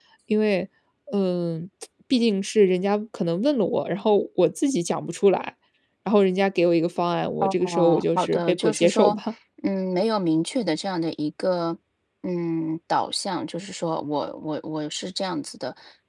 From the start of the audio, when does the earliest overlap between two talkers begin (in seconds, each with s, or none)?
7.4 s